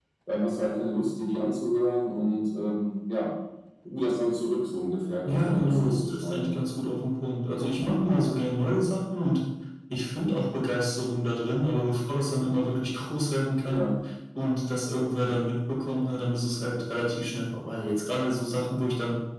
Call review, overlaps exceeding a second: present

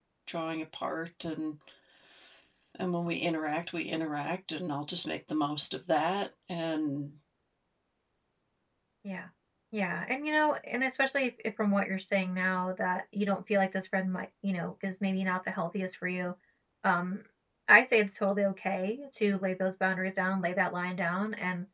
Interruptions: none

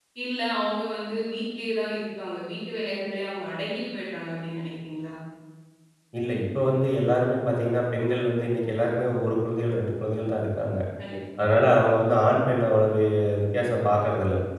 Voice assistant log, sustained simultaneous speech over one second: none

